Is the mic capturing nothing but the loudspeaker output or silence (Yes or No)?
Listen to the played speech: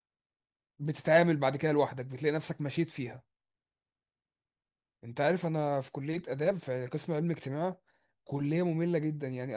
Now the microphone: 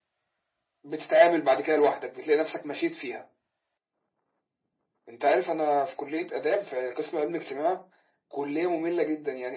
Yes